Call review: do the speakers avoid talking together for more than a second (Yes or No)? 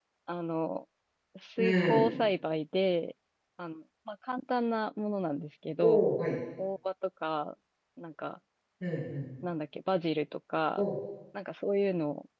Yes